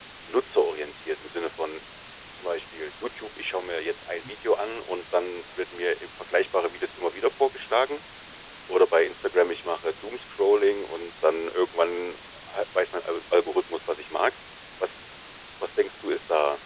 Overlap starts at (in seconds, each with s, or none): none